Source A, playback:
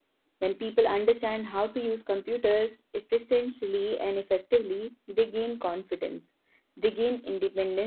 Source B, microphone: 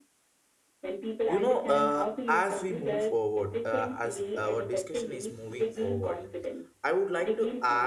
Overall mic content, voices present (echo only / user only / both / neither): both